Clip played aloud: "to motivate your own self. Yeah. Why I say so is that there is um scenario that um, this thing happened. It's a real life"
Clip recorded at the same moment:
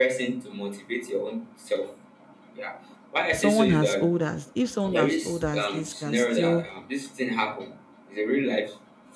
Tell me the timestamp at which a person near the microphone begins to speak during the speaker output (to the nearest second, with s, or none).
3 s